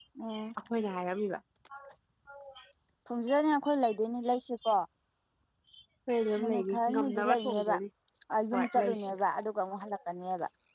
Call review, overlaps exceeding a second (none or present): present